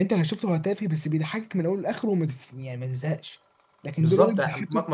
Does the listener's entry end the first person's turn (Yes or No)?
Yes